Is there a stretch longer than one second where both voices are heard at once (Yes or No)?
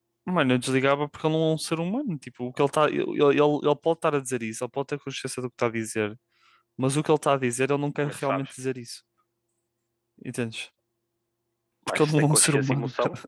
Yes